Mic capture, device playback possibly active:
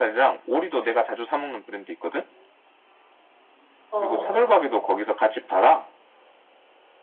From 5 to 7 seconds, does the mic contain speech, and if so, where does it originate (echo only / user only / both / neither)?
echo only